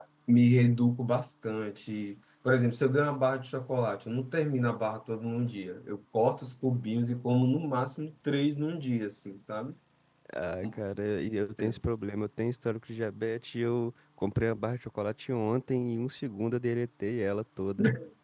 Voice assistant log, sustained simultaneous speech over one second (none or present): none